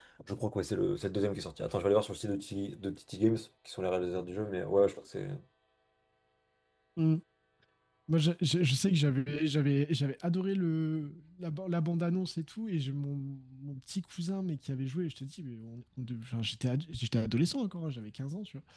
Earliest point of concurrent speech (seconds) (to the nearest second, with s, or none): none